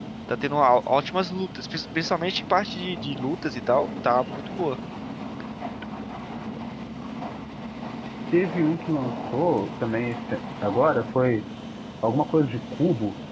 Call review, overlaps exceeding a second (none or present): none